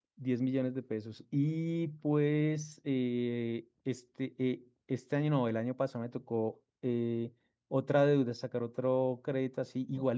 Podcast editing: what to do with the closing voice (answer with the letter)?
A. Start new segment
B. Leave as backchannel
B